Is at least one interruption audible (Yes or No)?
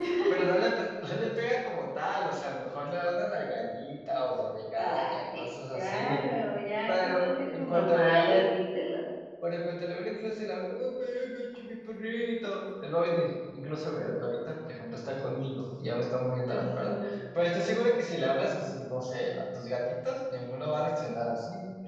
Yes